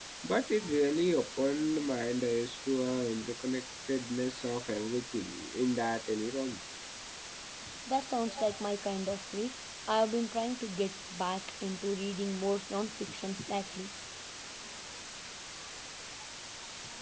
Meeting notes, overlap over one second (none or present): none